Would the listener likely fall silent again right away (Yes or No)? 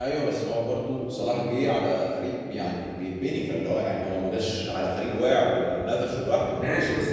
No